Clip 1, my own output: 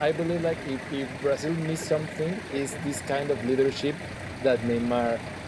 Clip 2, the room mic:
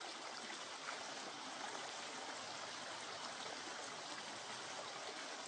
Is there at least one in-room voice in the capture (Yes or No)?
No